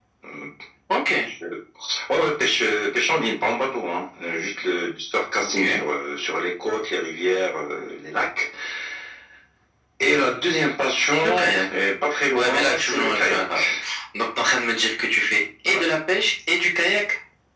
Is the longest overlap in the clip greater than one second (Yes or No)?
Yes